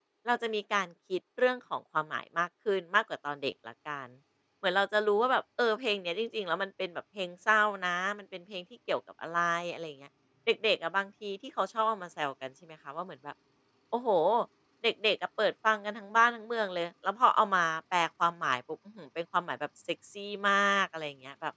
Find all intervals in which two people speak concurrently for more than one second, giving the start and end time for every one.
none

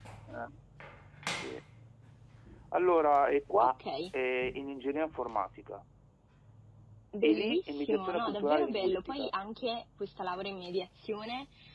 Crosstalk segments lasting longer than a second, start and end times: 7.2-9.3

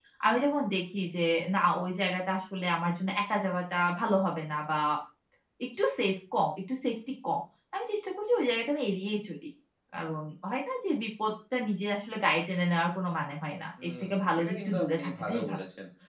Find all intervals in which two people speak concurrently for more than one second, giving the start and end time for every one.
13.8-15.6

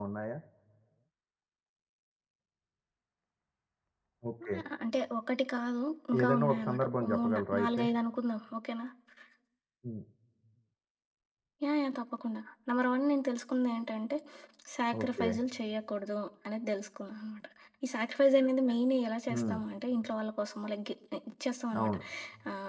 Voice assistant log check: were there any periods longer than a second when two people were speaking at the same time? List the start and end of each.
6.2-7.8

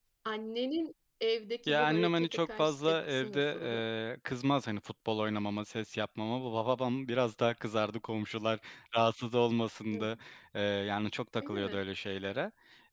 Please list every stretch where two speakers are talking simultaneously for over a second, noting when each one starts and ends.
1.7-3.8

